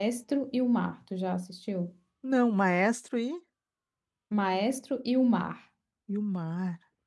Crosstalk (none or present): none